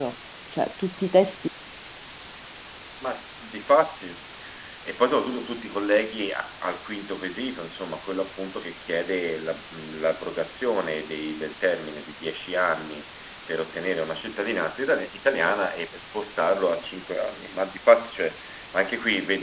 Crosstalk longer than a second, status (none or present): none